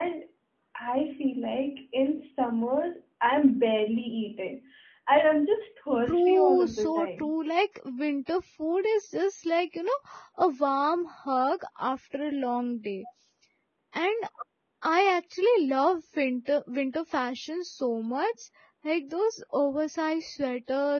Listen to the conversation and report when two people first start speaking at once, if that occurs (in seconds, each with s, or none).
6.1 s